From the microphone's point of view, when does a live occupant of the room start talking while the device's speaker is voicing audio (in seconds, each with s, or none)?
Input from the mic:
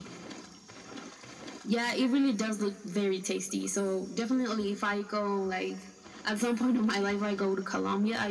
none